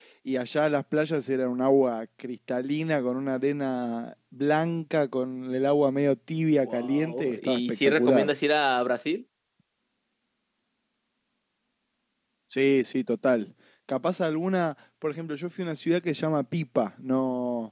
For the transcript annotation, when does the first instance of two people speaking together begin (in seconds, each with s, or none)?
6.6 s